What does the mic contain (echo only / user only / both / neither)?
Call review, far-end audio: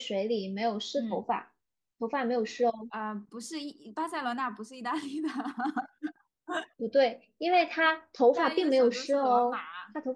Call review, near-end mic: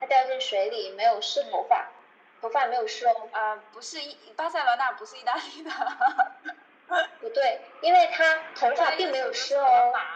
echo only